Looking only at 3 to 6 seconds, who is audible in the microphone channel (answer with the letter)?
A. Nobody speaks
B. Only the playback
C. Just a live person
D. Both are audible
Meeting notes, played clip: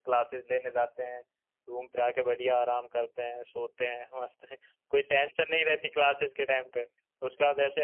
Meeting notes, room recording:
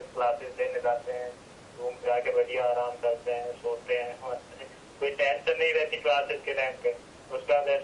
B